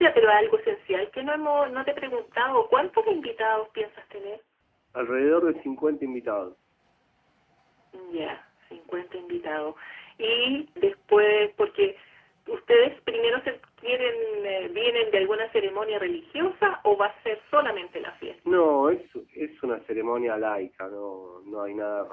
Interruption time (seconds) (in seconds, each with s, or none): none